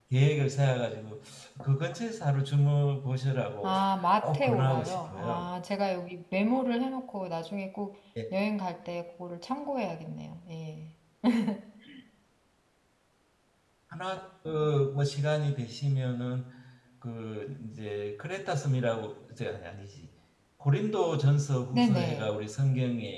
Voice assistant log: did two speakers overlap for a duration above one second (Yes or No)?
Yes